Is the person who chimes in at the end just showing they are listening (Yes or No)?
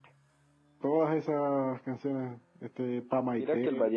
No